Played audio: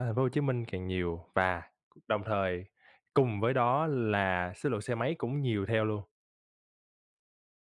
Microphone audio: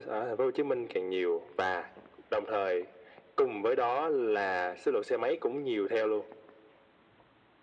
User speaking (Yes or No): No